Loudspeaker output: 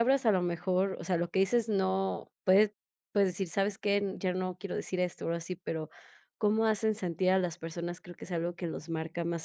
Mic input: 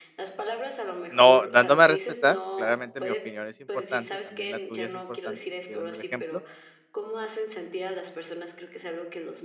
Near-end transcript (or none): no dándome a respetar. Claramente mi opinión es importante, también la tuya es importante, estoy dando el ejemplo,